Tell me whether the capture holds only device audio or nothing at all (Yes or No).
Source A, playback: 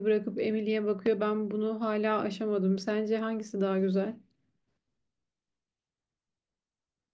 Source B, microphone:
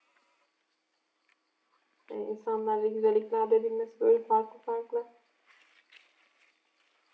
No